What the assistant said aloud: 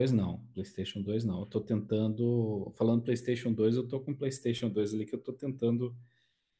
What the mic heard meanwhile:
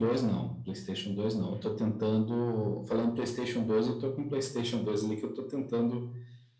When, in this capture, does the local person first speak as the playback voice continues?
none

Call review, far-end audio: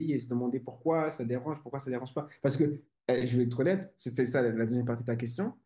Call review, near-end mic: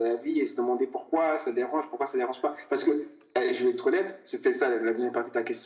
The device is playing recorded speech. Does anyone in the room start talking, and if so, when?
none

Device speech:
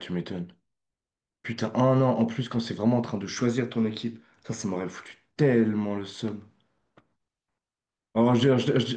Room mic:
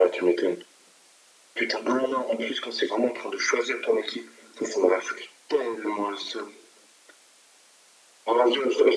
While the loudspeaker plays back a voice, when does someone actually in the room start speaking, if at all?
none

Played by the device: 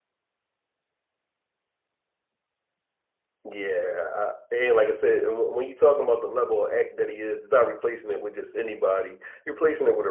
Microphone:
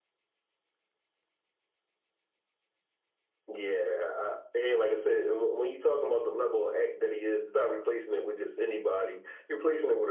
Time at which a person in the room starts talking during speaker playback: none

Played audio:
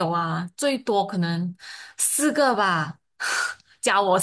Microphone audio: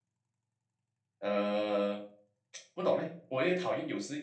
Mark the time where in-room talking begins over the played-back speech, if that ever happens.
1 s

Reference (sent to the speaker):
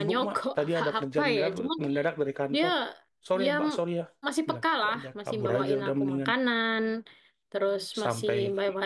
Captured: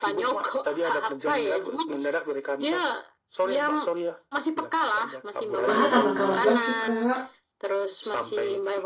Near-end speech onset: 6 s

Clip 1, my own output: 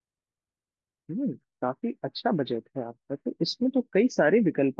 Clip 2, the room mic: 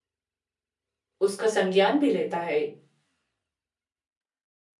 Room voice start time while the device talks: 1 s

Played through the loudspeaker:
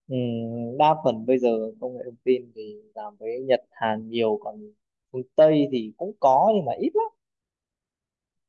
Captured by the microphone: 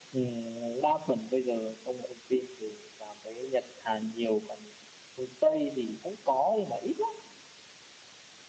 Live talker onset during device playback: none

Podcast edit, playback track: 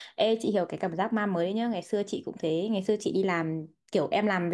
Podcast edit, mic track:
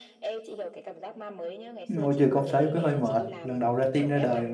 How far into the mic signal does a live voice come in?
2 s

